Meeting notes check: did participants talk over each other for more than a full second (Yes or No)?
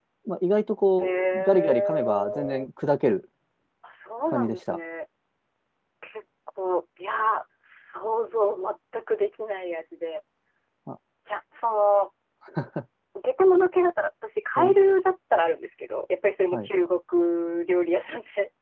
Yes